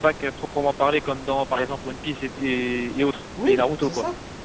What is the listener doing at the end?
taking over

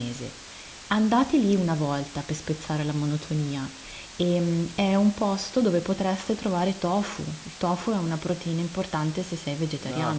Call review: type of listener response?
taking over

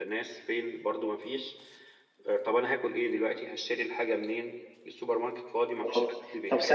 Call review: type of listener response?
taking over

